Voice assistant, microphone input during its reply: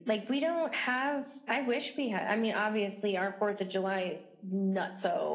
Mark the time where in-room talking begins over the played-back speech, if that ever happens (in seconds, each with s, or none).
none